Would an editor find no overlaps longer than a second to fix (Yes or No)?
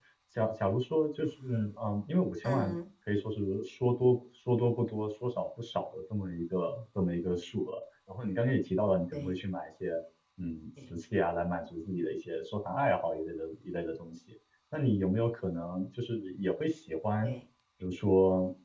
Yes